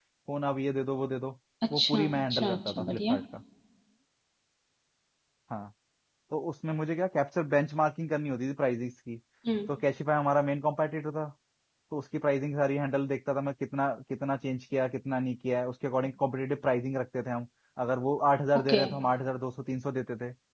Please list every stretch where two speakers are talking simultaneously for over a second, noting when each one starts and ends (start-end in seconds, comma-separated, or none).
1.8-3.2